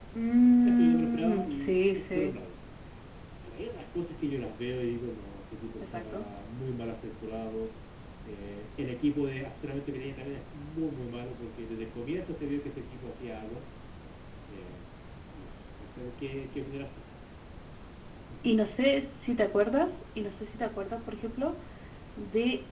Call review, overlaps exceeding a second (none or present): present